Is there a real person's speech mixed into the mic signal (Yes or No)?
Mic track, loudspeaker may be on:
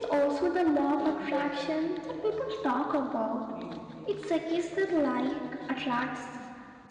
Yes